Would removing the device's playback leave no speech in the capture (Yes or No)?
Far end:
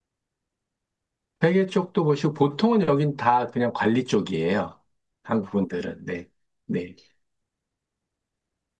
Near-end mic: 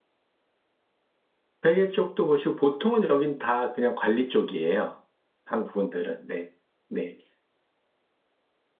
Yes